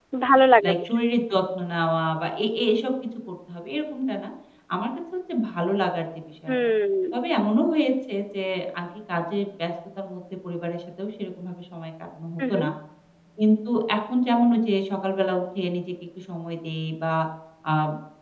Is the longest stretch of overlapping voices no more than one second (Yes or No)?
Yes